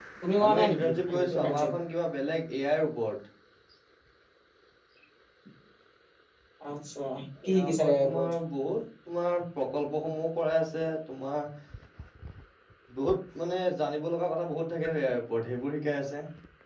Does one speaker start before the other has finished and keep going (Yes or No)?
Yes